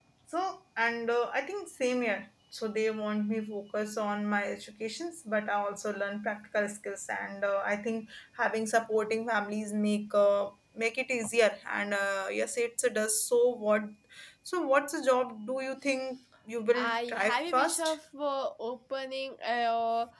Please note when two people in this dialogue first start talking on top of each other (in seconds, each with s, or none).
16.7 s